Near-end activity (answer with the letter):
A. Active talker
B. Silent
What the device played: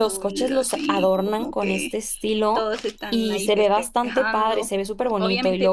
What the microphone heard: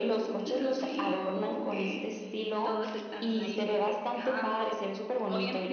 B